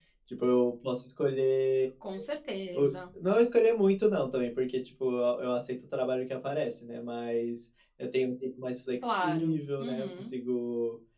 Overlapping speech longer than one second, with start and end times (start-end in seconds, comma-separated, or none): 9.0-10.3